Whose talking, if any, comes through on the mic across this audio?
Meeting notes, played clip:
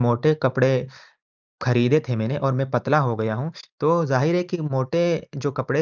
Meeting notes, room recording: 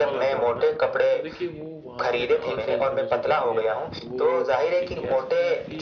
both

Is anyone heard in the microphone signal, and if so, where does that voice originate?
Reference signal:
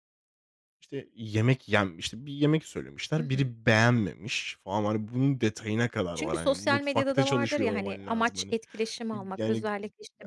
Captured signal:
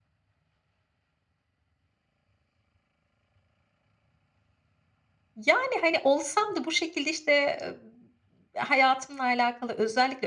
user only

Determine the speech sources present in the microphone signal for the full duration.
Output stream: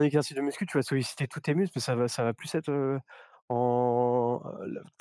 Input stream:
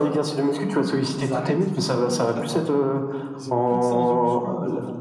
both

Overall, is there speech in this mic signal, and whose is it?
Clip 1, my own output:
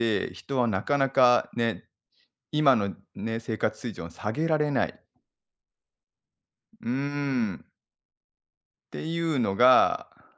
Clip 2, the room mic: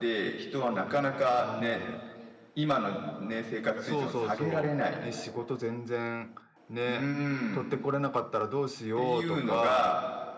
both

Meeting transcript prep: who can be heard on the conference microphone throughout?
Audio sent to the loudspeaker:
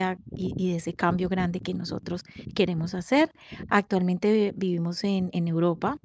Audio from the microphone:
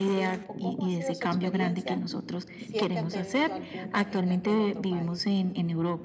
both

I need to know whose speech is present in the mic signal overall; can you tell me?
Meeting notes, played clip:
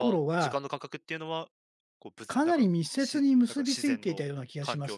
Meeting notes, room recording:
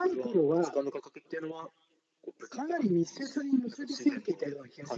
echo only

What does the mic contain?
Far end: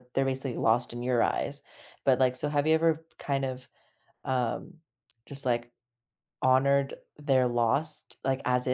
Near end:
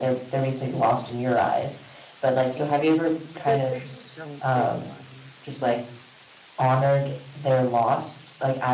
both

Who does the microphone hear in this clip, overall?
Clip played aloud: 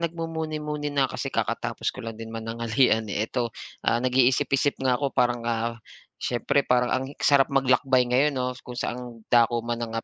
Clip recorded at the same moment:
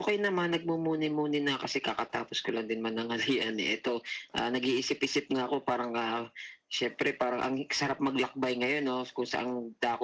echo only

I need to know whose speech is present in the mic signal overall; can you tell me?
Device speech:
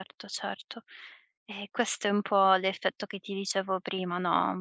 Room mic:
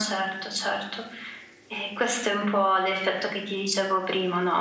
echo only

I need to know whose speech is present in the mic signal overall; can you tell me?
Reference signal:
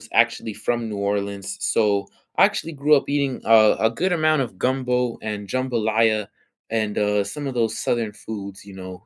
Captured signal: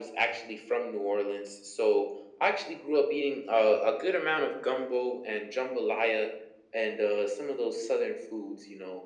echo only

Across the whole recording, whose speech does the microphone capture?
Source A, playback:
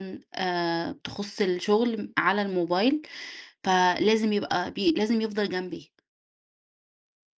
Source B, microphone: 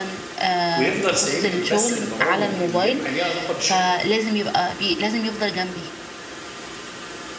both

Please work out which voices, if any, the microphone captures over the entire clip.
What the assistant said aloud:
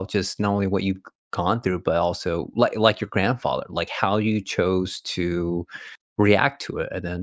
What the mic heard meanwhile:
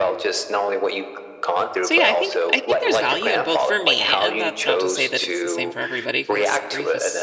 both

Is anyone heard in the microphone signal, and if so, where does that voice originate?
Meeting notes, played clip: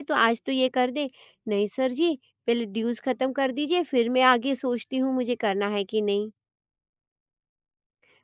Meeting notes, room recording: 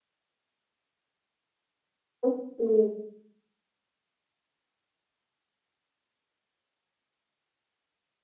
user only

